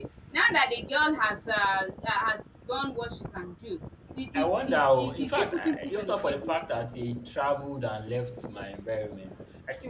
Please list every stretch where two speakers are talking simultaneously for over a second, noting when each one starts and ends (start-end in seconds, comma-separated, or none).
4.3-6.5